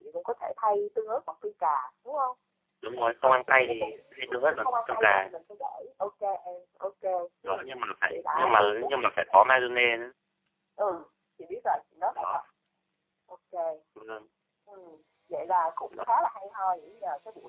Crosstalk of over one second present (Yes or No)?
Yes